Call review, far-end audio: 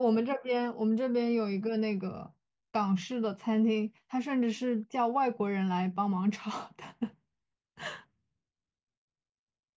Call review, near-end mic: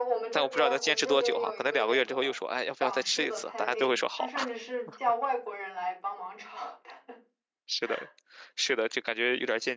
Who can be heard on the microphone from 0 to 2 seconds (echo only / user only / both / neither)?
both